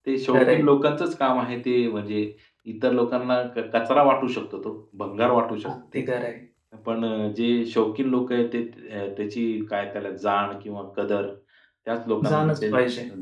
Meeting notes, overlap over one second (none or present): none